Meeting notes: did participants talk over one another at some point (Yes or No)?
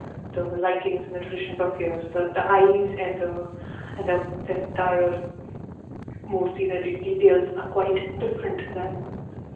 No